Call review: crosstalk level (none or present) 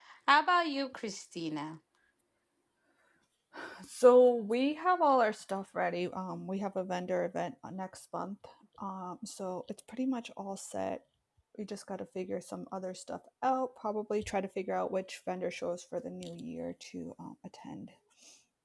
none